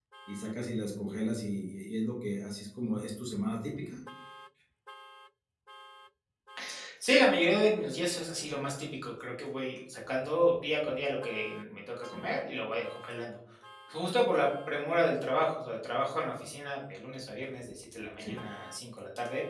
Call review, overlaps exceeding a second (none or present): none